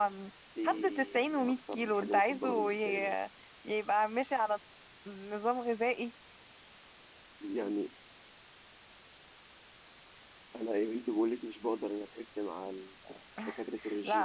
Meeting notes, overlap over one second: present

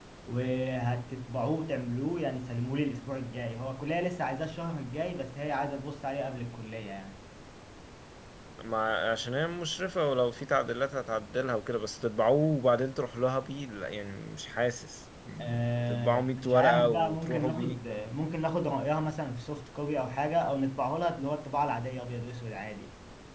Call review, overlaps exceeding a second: present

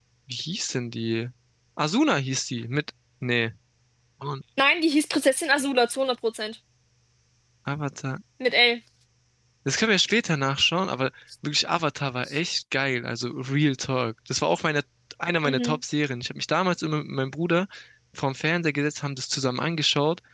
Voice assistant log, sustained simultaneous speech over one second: none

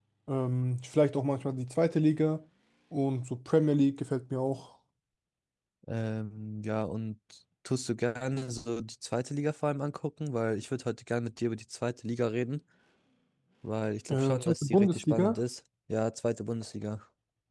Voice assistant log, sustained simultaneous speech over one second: present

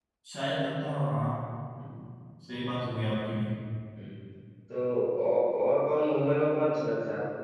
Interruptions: none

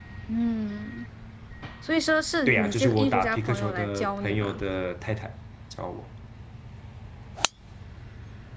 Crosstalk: present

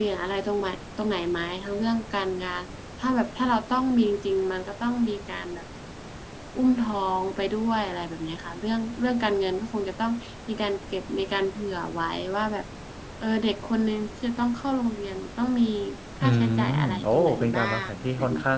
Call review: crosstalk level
present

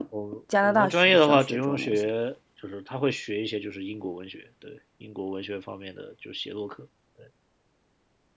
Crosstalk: present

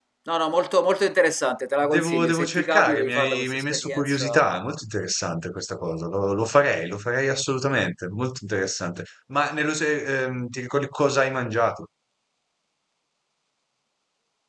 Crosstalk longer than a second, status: present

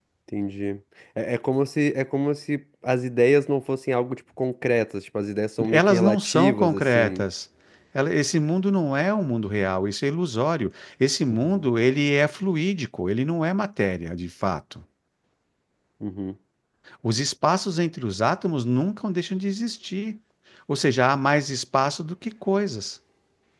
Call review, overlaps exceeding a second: present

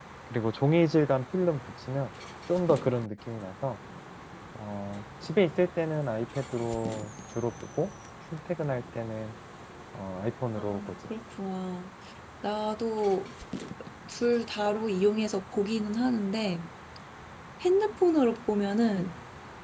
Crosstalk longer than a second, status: none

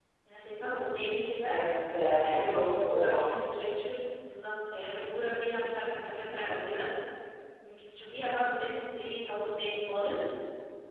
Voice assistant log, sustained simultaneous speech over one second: present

